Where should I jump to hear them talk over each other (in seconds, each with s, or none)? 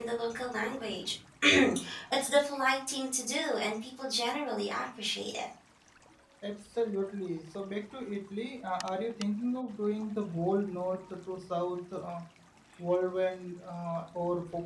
none